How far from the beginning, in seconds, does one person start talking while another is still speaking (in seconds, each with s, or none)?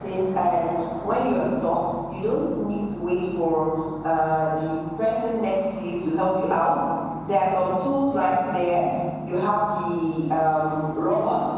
none